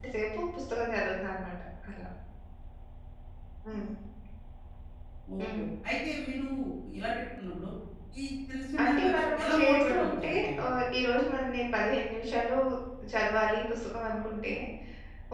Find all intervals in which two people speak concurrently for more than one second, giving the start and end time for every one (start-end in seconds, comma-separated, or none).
8.8-10.6